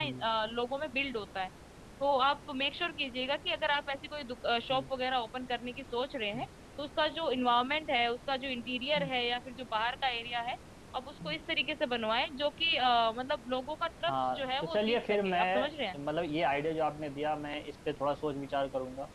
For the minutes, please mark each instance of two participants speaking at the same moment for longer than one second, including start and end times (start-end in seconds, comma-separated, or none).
14.1-16.0